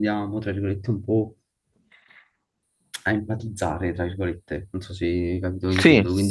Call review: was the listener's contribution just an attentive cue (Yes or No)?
Yes